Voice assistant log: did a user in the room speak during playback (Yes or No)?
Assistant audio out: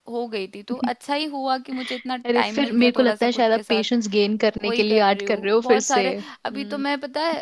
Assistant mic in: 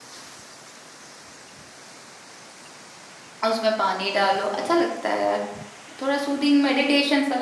Yes